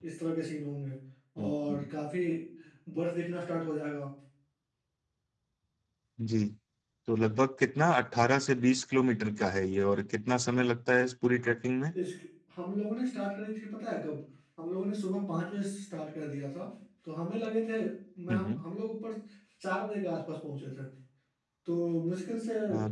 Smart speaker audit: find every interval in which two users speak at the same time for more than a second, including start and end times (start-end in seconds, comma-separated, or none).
none